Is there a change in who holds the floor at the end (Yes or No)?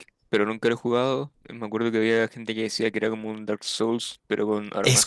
Yes